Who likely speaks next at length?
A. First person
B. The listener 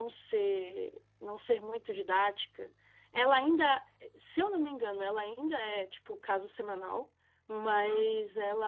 A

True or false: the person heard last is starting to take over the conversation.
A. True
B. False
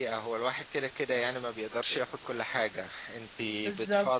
B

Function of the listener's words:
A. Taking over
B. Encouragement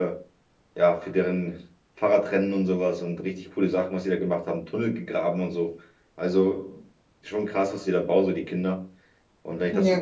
B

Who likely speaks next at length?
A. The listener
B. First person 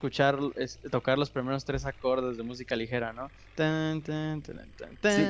A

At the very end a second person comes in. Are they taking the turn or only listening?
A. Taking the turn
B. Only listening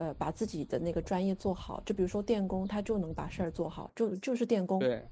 B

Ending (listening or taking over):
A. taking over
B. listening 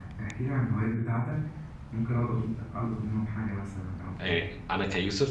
A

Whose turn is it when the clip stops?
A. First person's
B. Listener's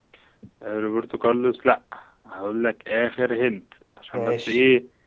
A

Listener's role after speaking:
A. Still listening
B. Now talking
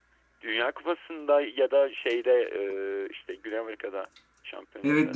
B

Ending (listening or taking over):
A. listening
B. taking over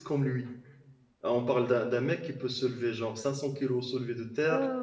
B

